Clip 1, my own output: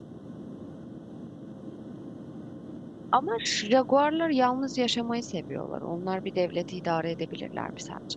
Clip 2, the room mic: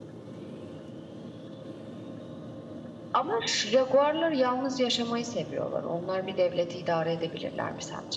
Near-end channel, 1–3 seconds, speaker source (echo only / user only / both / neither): neither